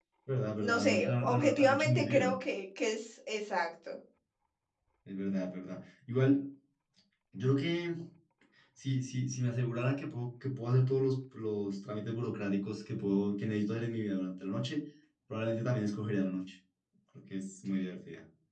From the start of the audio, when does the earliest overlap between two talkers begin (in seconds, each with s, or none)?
0.6 s